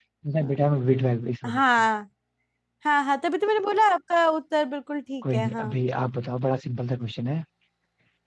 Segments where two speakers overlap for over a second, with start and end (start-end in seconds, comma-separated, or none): none